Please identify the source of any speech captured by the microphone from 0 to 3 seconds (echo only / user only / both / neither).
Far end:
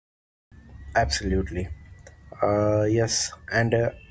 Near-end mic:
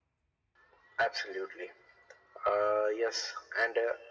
echo only